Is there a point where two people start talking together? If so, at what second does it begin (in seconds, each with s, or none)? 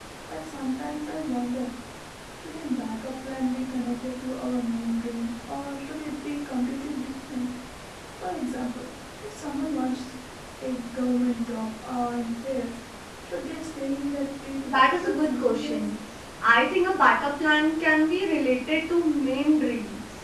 14.6 s